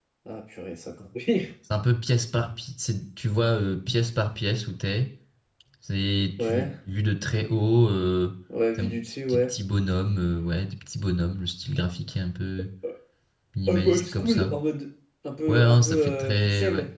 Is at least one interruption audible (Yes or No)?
Yes